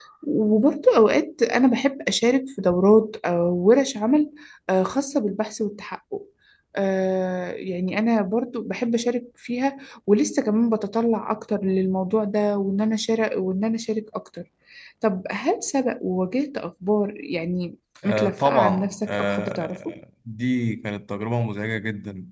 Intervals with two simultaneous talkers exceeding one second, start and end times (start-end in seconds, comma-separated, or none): 18.0-19.8